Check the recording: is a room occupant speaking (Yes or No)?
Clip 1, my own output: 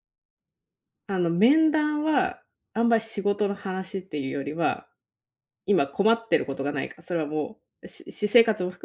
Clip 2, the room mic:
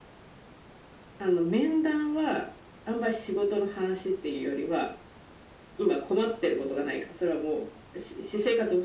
No